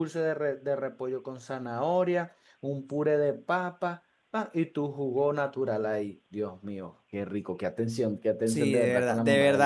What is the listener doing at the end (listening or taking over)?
taking over